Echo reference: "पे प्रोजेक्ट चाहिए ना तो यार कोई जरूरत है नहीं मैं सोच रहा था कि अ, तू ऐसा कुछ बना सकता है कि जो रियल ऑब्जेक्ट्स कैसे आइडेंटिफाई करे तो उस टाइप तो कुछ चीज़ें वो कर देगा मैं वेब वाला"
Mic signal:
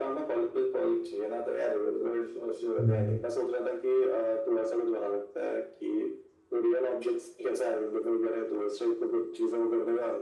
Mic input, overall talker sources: both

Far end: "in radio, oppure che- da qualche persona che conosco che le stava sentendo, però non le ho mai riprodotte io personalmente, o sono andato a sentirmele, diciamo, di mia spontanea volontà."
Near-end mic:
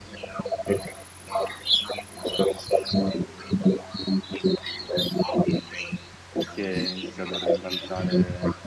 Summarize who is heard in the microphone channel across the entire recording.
both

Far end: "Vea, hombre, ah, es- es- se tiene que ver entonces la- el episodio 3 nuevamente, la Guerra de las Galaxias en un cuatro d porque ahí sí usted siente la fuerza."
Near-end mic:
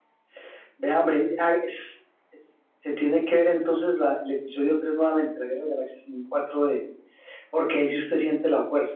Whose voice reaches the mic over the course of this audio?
echo only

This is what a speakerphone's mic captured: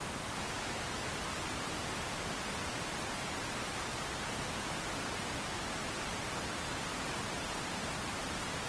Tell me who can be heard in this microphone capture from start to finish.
neither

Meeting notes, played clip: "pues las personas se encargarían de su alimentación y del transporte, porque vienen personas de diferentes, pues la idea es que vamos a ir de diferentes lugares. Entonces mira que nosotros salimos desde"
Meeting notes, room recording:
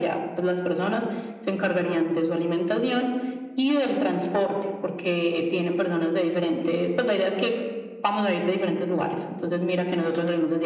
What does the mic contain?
echo only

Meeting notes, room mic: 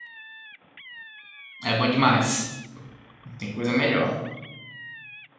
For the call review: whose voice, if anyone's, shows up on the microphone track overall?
user only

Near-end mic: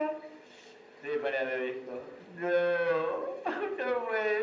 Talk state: echo only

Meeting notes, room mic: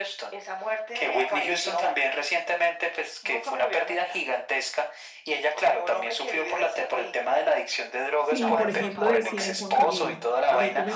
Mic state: both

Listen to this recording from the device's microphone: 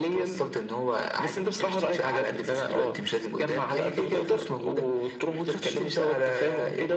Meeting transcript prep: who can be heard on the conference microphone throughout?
echo only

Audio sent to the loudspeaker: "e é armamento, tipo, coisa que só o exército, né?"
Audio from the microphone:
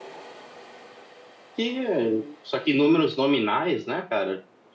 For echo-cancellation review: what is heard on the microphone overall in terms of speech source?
user only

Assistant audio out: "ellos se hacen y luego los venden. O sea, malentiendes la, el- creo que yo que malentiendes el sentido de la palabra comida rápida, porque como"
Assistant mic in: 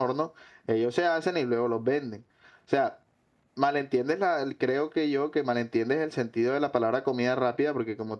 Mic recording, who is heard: echo only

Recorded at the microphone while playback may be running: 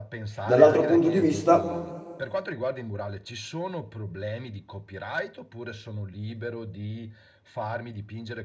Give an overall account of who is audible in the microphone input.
both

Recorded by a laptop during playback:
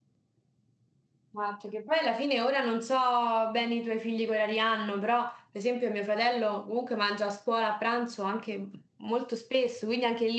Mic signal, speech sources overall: user only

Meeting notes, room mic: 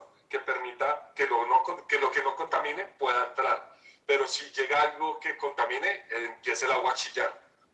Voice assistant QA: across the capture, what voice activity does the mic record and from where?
echo only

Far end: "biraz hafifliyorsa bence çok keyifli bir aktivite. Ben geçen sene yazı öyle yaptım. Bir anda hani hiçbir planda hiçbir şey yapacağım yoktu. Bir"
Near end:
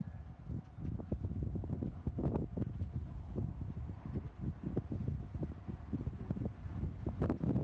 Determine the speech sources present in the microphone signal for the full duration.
neither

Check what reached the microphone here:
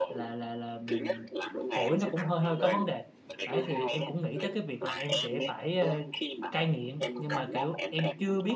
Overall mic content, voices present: both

